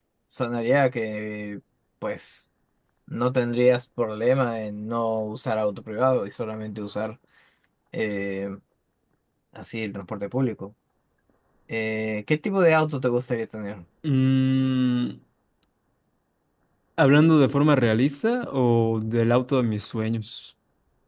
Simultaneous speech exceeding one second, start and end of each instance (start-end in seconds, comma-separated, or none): none